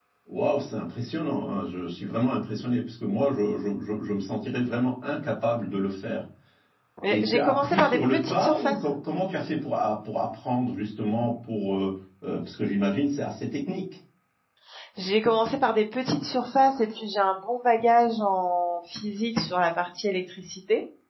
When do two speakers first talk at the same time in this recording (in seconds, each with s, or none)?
7.1 s